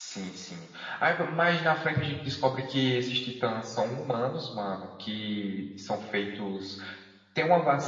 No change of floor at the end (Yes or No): Yes